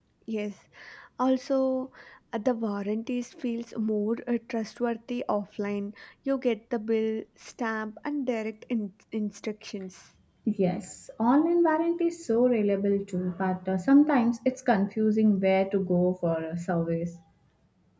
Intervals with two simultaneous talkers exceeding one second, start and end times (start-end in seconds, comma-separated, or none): none